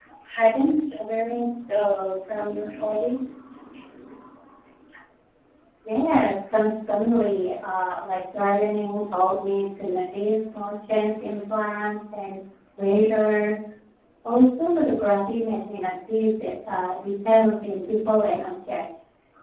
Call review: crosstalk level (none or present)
none